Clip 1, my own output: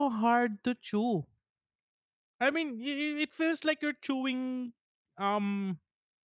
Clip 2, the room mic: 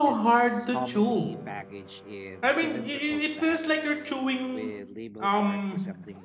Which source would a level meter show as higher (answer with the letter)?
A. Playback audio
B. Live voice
A